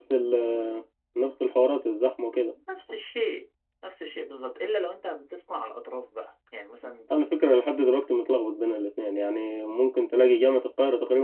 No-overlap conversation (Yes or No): Yes